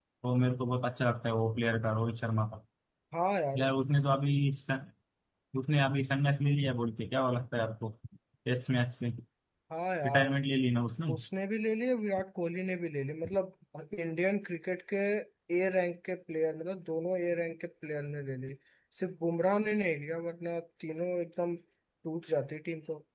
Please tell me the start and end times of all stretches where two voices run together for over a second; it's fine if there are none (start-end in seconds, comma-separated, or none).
none